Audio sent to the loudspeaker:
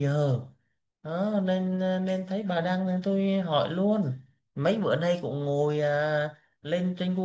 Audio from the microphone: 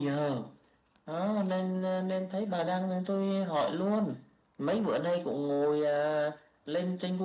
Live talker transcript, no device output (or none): none